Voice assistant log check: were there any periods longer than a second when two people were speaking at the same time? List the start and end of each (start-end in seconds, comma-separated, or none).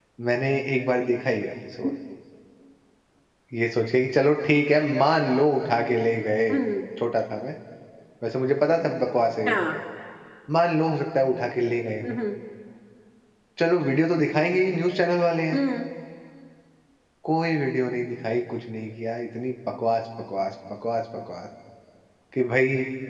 none